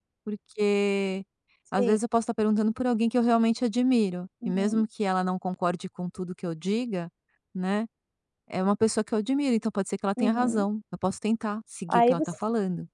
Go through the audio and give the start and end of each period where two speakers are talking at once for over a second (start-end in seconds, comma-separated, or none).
none